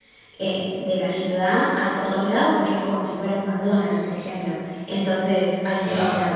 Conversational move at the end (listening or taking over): taking over